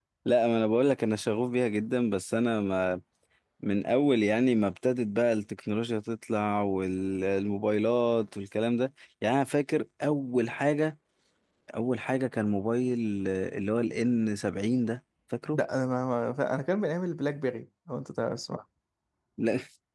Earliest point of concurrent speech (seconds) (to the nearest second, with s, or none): none